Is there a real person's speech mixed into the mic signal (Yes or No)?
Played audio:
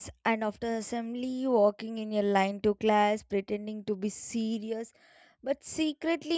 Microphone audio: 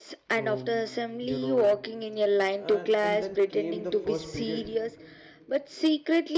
Yes